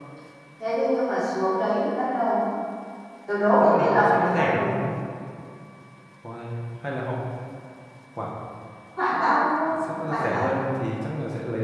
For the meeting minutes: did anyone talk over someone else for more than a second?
Yes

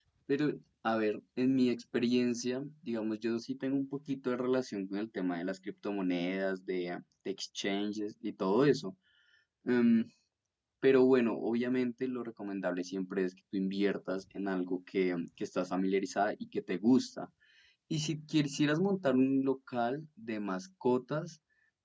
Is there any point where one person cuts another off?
No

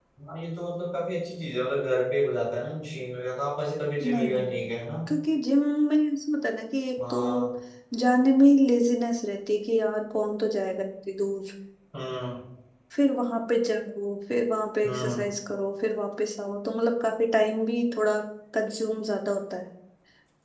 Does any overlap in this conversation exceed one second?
No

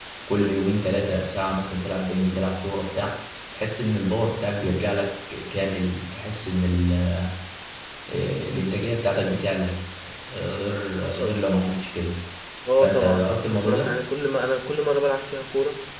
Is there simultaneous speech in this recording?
Yes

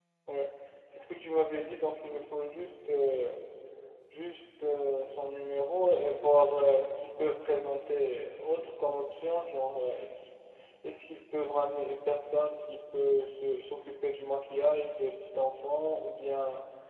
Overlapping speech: No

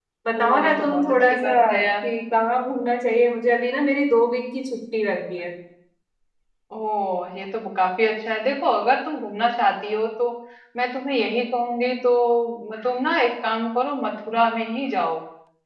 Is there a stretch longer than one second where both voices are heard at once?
Yes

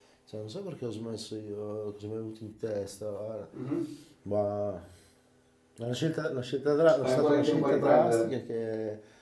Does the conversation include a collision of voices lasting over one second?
Yes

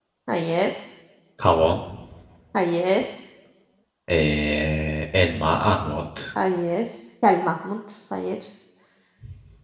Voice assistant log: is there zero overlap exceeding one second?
Yes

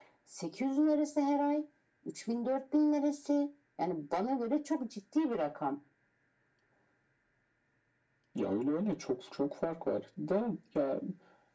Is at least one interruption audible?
No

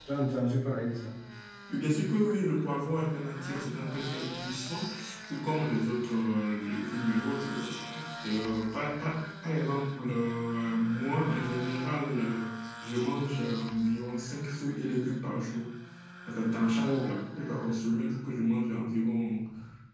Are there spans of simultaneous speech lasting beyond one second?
No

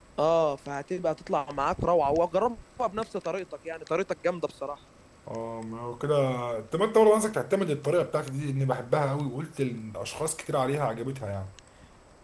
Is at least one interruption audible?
No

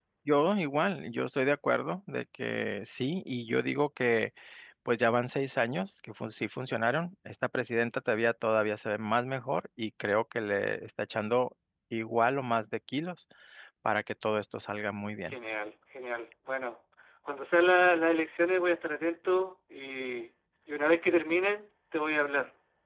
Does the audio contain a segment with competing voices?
No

